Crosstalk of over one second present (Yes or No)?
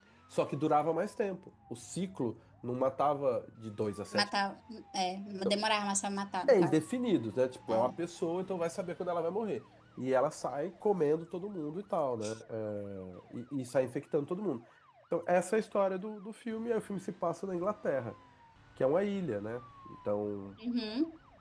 No